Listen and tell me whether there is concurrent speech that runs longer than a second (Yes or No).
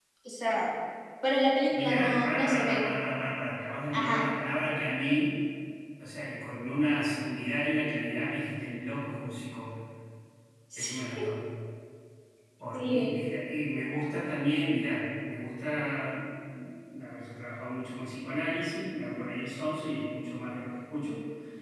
Yes